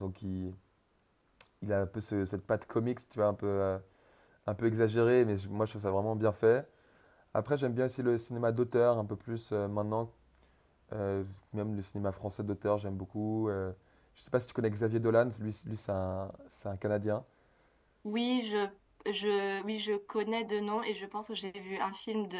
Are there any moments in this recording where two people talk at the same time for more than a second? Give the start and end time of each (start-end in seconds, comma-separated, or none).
none